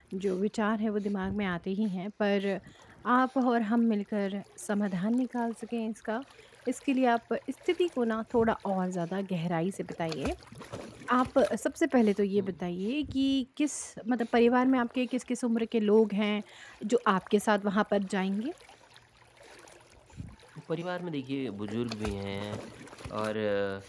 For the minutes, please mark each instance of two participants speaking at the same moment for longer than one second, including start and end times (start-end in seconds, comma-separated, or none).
none